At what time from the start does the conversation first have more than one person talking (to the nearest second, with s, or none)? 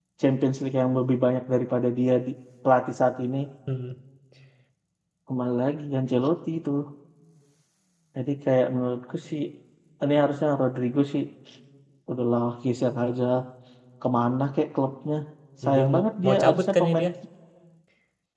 16 s